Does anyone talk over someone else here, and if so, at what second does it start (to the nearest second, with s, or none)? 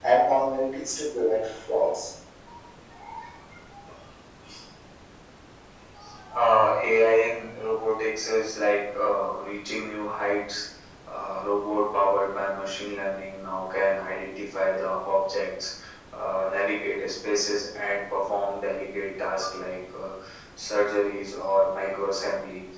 none